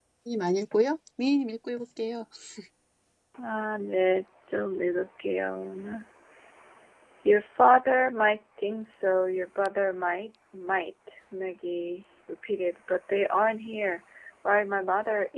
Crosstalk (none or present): none